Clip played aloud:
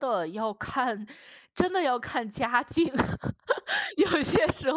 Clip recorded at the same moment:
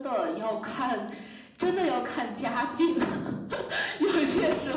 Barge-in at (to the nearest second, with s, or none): none